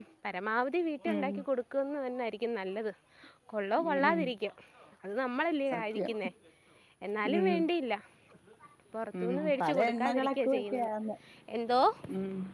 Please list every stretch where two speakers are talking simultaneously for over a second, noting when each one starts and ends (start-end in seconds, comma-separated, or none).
9.2-10.9